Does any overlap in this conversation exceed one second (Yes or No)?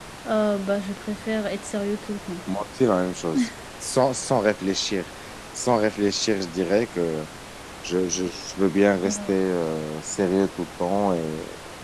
No